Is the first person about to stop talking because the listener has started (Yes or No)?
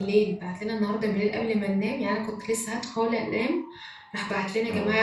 No